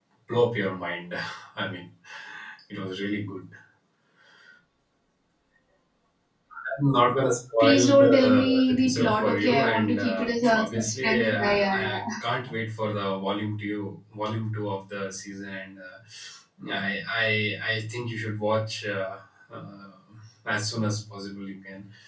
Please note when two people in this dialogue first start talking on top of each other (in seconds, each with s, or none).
7.6 s